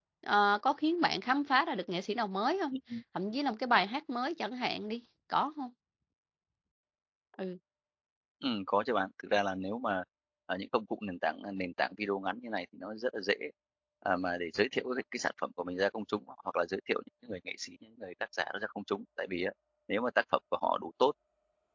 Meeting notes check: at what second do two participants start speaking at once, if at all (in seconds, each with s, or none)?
none